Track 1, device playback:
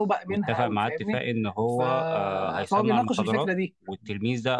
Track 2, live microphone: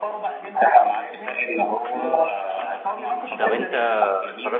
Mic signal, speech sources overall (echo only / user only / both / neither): both